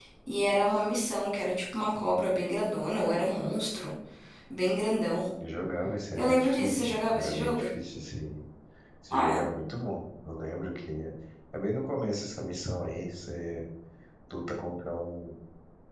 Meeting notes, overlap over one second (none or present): present